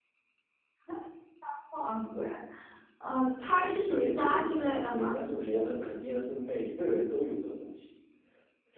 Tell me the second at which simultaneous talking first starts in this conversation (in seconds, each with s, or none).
3.6 s